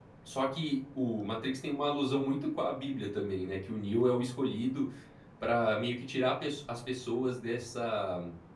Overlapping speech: No

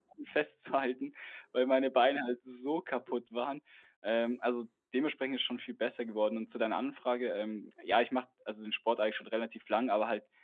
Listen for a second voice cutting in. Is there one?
No

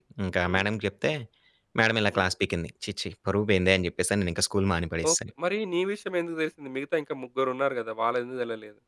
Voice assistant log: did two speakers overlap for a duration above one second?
No

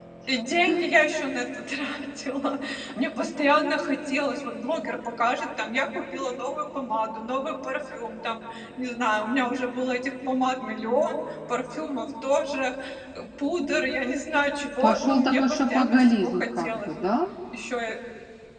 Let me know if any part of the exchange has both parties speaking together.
Yes, from 14.8 s

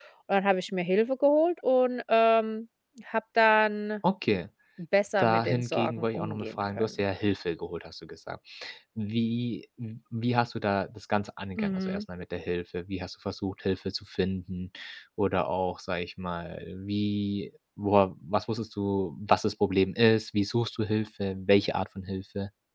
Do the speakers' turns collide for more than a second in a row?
Yes, from 5.2 s

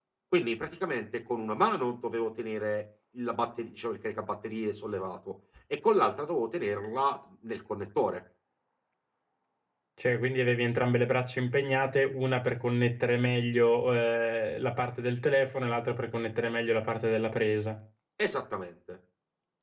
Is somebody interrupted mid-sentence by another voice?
No

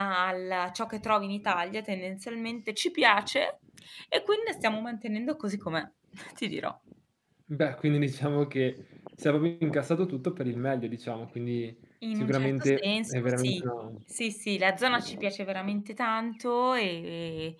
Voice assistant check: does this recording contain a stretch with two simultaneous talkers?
Yes, from 12.0 s

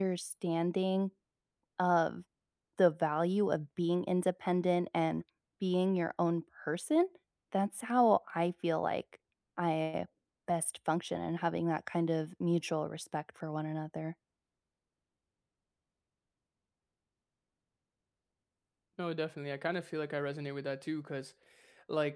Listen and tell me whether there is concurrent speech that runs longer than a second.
No

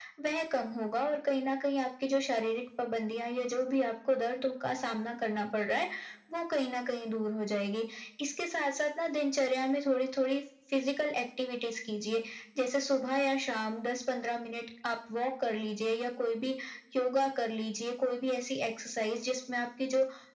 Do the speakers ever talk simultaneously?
No

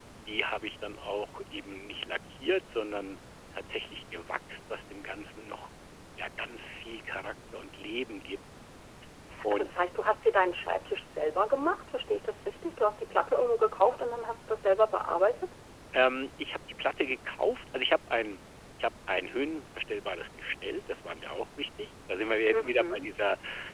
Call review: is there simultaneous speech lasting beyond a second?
No

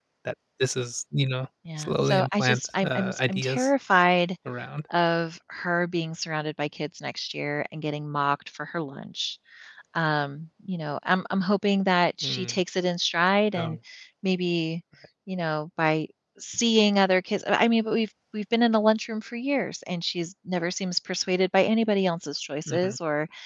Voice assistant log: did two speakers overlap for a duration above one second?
Yes, from 1.8 s

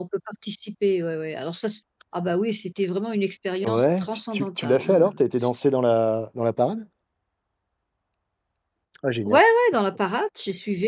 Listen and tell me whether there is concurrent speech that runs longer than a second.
Yes, from 3.6 s

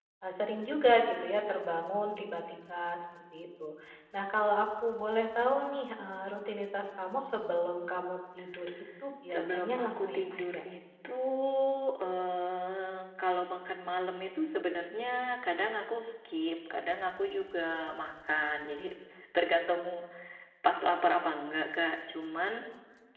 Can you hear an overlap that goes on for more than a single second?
Yes, from 9.3 s

